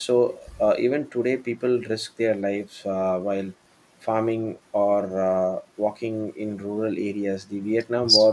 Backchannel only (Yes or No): Yes